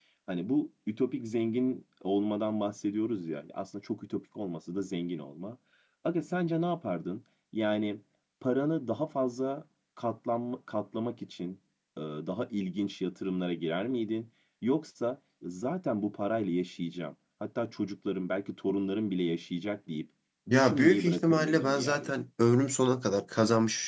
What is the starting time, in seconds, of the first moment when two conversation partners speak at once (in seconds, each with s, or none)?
20.5 s